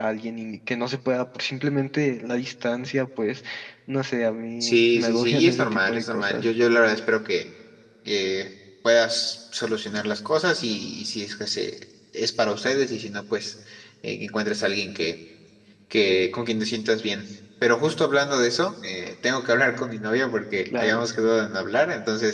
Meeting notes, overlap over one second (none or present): present